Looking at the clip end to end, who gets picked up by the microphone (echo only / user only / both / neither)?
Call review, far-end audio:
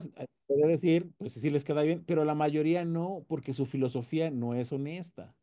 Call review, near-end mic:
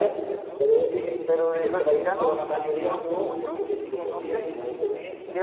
both